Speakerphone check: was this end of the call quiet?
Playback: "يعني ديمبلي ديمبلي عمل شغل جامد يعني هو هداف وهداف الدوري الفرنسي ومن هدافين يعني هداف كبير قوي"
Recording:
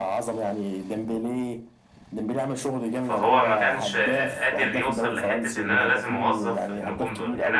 No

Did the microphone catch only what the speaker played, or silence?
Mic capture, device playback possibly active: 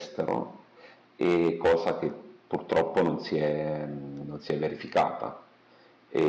No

